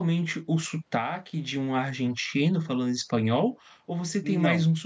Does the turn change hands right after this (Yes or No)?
No